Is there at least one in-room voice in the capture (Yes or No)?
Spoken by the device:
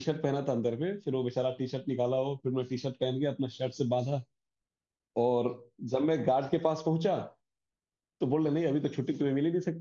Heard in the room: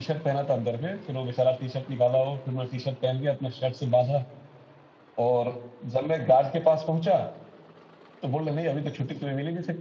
No